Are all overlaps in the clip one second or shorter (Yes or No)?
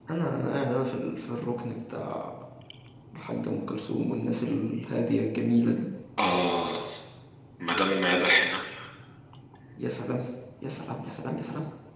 Yes